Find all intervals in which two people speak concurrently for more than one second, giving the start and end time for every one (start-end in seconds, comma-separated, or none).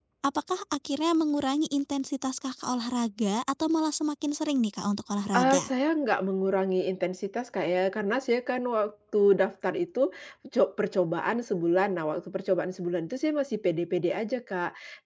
none